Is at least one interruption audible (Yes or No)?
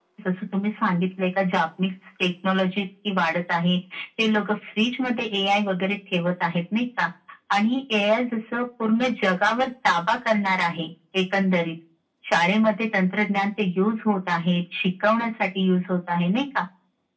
No